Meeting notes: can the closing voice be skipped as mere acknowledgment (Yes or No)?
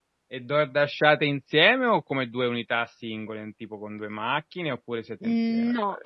No